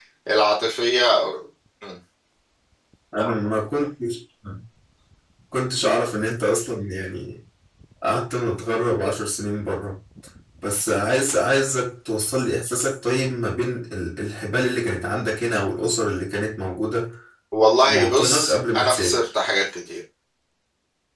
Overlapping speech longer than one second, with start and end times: 17.8-19.2

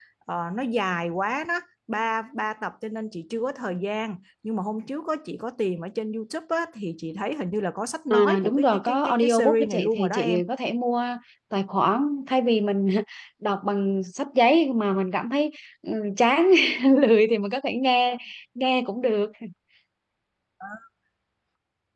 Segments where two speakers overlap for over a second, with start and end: 8.1-10.4

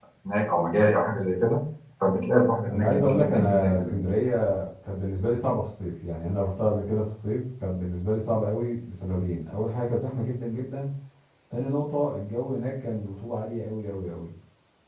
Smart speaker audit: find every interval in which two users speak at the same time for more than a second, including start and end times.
2.7-4.0

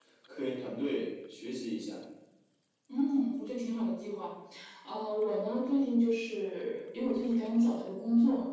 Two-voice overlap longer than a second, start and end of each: none

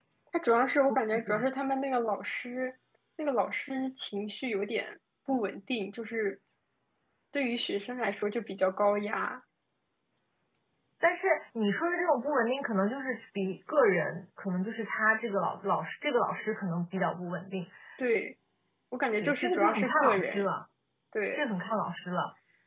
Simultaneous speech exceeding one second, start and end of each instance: 19.2-20.5

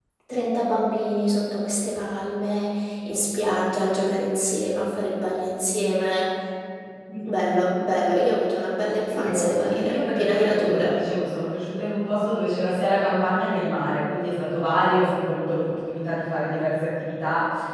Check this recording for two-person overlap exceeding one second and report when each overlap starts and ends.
9.1-11.0

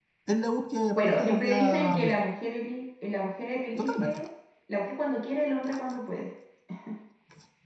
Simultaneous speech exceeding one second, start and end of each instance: 1.0-2.2

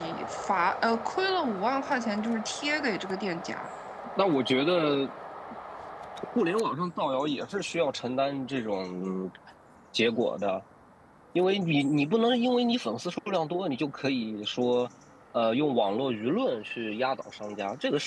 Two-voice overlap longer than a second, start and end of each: none

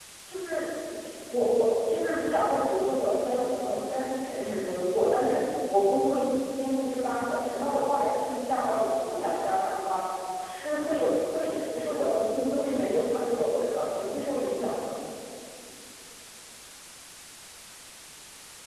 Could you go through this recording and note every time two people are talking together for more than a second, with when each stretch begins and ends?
none

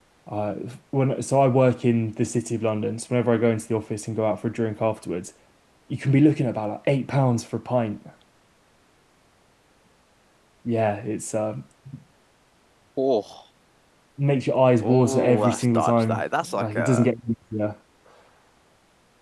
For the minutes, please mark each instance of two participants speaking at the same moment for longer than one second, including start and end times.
14.8-17.1

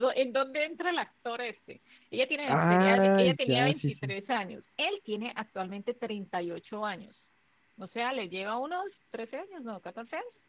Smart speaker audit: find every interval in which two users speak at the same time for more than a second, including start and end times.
2.5-4.1

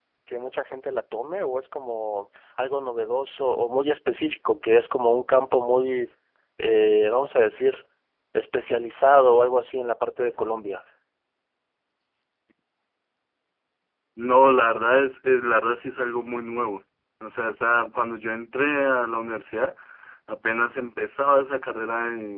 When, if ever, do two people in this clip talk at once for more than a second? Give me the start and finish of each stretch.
none

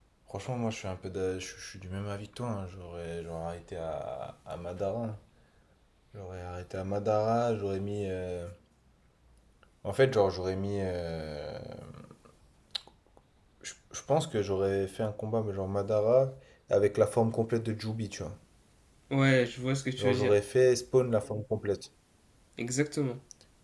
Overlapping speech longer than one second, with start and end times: none

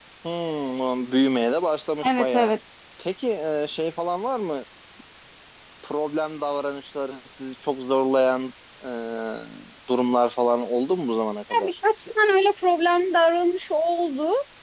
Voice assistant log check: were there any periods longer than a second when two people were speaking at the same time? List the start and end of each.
none

